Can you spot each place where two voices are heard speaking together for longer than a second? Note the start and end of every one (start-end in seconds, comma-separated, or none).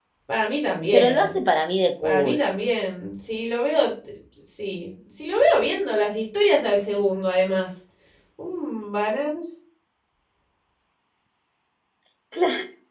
none